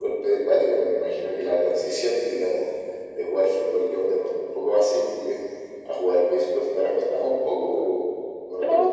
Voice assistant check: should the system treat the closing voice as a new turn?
Yes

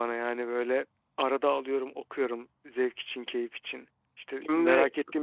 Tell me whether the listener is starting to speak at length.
No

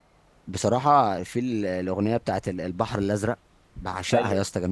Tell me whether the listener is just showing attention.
Yes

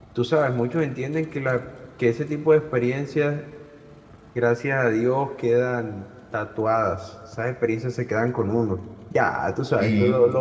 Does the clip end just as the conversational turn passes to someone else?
No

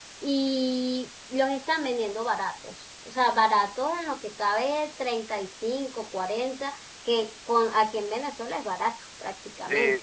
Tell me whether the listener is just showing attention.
No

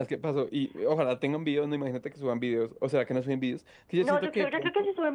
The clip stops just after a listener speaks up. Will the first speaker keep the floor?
No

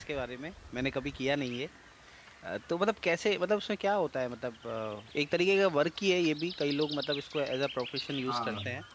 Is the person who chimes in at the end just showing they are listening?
No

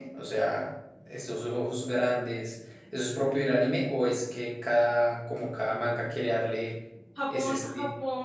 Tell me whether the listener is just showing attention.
No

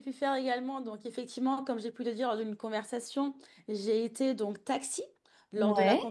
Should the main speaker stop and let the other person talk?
No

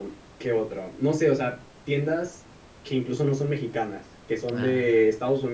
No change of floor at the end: Yes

